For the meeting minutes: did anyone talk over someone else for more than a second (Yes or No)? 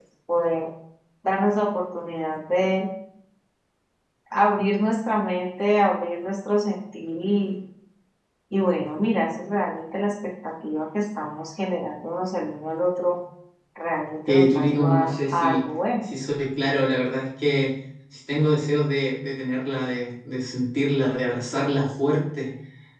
Yes